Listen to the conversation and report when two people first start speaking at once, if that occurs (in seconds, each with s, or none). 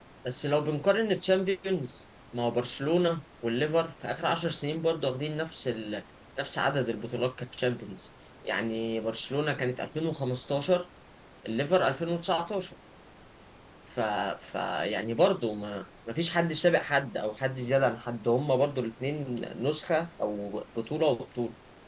none